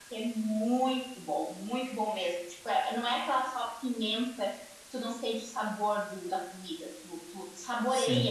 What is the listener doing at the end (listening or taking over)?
taking over